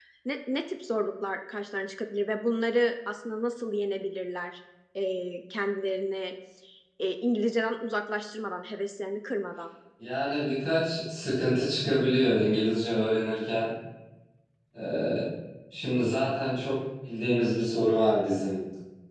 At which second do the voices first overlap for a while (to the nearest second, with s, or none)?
none